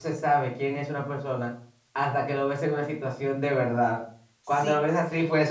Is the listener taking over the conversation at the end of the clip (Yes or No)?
No